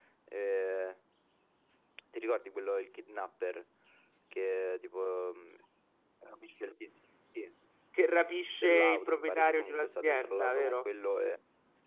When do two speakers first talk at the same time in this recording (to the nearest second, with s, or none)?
9 s